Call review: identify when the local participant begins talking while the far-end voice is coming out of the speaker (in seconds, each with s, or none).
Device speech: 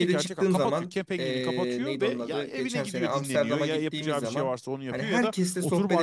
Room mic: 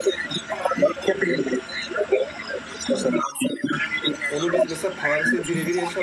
4.3 s